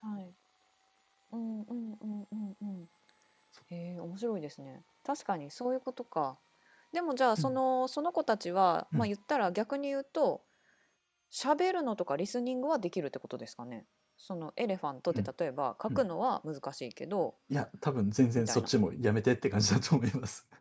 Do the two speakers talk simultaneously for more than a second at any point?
No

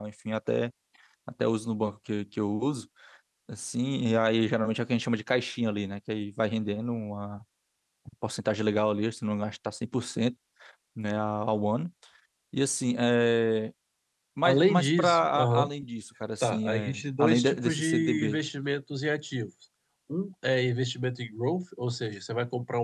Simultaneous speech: Yes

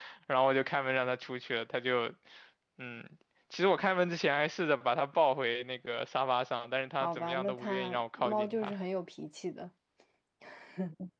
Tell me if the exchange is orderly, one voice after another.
No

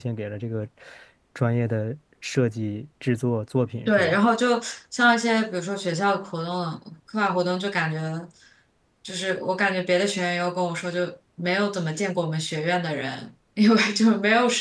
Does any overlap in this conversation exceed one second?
No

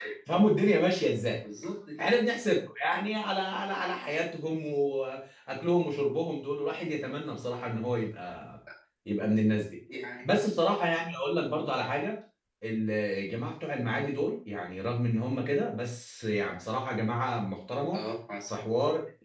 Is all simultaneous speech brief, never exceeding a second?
Yes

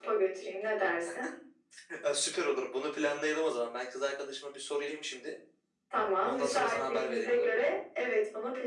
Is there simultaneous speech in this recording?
Yes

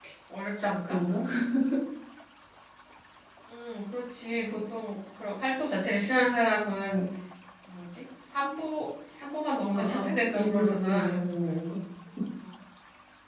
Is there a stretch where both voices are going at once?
Yes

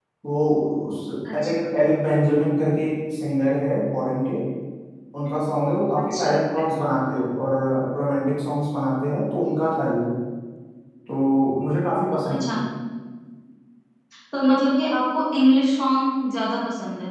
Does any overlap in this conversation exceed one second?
No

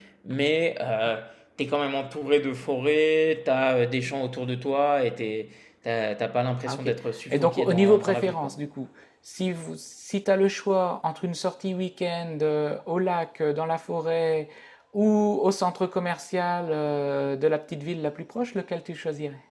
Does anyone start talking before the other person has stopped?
Yes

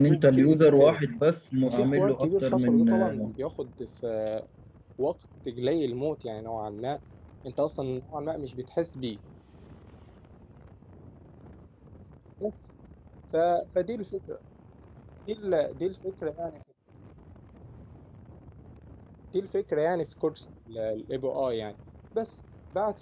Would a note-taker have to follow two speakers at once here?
Yes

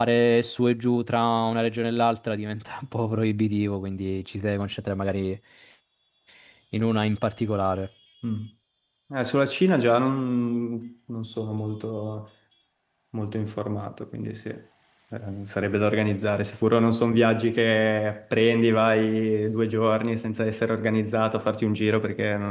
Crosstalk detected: No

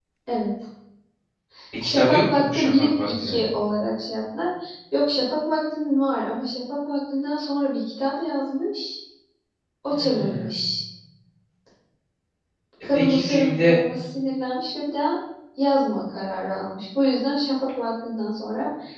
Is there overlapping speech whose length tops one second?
Yes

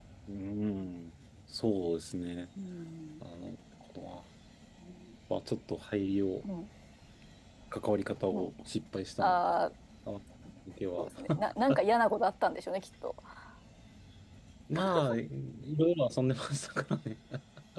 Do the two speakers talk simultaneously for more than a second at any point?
No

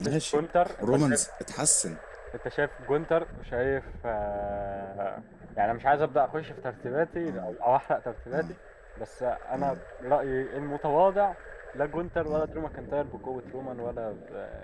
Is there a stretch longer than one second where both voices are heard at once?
No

